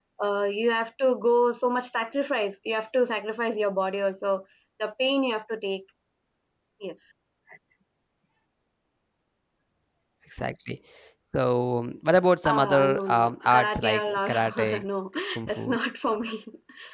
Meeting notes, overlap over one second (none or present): present